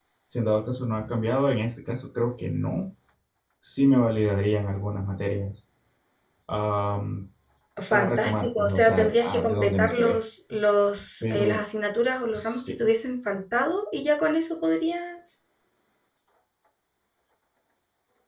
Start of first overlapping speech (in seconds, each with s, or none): 7.9 s